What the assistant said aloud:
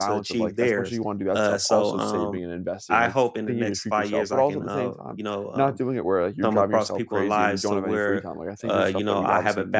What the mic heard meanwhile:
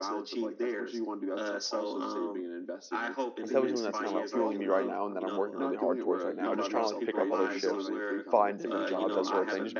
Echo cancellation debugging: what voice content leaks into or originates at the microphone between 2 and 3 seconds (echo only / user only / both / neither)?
echo only